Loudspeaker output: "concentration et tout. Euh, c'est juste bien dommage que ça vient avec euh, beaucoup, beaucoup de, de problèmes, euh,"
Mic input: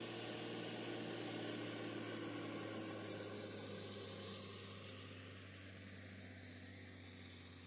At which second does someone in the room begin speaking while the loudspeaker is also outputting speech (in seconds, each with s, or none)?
none